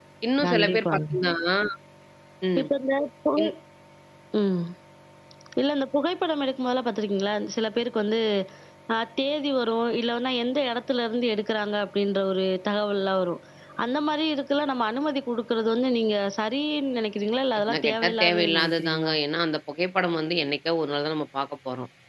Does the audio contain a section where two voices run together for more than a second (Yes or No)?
Yes